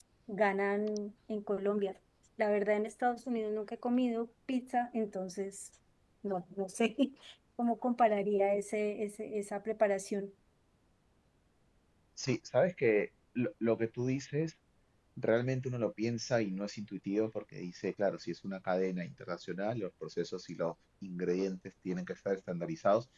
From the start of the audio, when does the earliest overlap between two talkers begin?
none

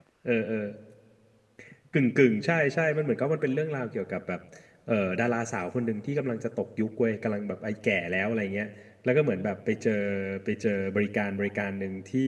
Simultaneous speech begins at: none

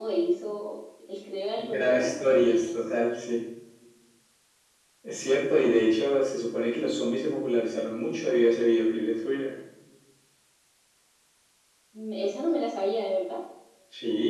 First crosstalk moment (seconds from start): 1.6 s

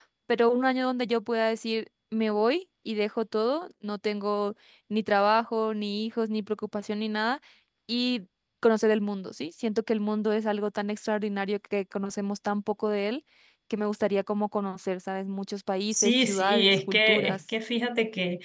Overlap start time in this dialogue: 15.9 s

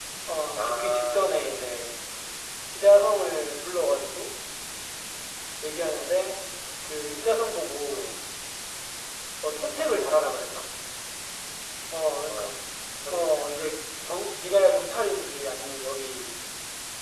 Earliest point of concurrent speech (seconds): 0.6 s

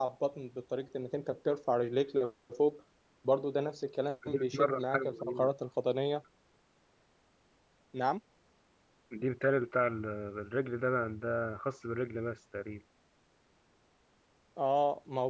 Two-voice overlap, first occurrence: 4.2 s

